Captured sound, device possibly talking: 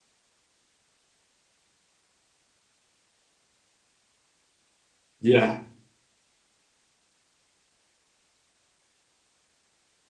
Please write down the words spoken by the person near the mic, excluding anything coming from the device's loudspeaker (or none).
Yeah.